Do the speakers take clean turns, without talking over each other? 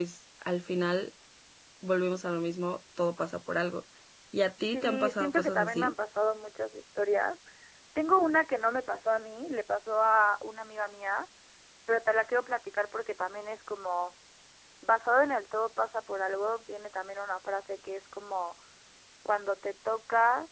No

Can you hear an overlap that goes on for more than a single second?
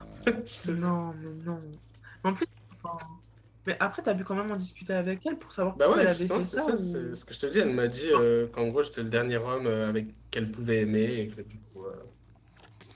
Yes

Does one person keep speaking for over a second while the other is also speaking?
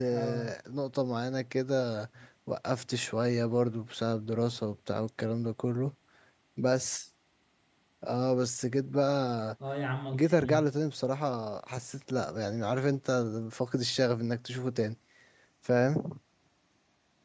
No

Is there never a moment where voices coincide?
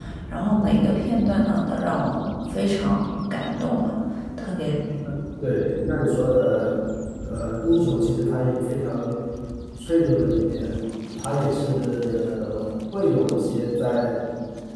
Yes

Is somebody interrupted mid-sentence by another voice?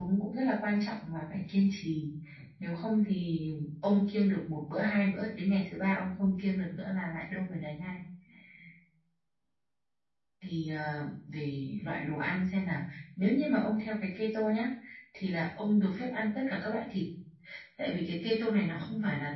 No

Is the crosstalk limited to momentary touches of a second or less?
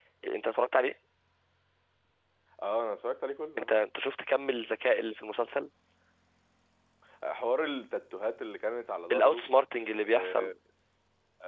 Yes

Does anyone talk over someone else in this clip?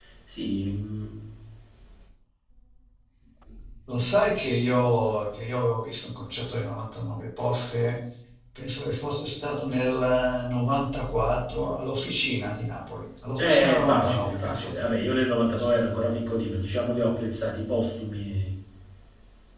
Yes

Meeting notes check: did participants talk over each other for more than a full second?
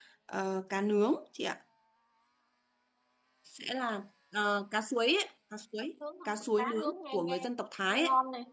Yes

